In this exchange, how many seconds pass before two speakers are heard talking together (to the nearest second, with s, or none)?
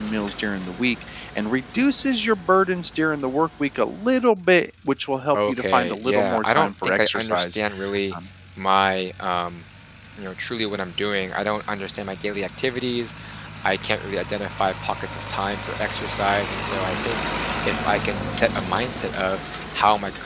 5 s